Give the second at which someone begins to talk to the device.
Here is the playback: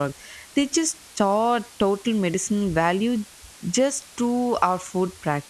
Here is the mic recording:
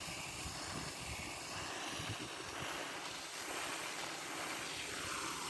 none

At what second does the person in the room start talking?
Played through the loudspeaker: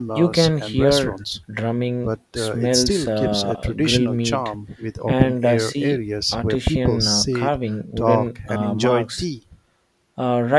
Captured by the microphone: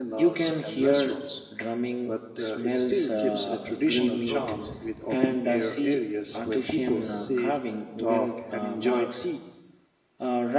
4.0 s

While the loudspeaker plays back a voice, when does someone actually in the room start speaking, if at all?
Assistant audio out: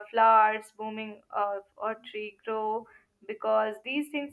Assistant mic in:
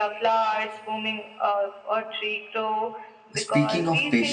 3.4 s

